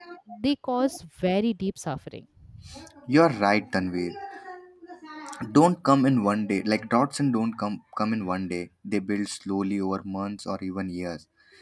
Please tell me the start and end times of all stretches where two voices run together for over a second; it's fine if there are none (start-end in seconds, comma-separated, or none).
none